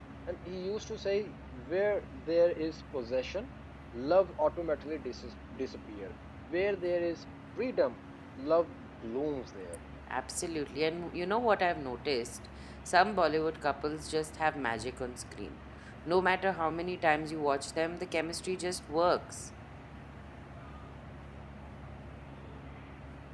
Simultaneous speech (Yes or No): No